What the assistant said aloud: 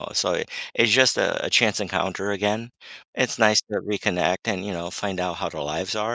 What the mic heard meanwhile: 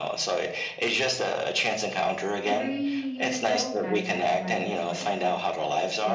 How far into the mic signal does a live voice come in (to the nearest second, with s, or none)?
2 s